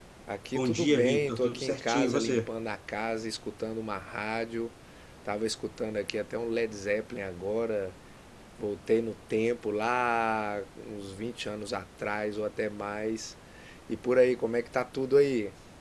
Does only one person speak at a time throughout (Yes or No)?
No